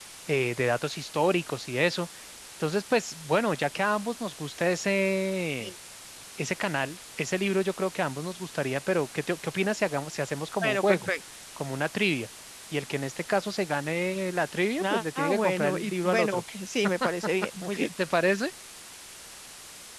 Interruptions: present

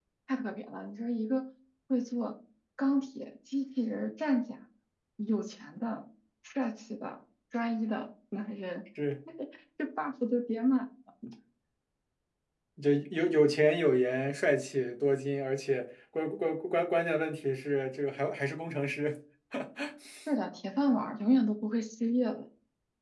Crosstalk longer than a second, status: none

